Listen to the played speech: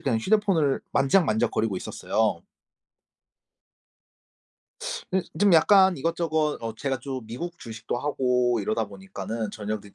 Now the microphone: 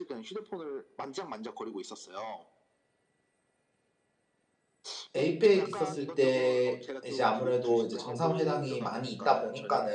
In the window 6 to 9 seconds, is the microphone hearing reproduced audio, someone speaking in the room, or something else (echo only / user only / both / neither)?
both